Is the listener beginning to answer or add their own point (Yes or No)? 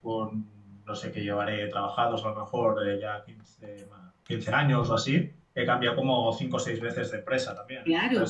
Yes